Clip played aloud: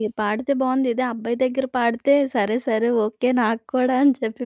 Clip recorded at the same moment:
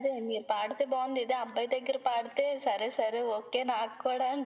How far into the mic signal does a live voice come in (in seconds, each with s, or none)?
none